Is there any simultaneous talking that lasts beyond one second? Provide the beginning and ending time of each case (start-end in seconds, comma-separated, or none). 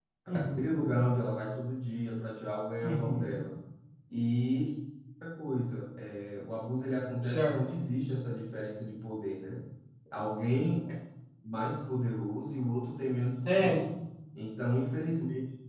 none